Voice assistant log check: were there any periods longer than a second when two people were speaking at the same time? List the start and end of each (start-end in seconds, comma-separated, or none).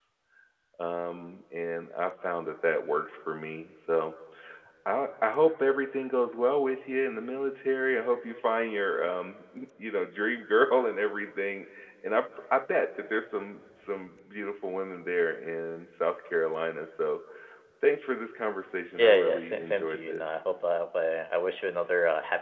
18.9-20.2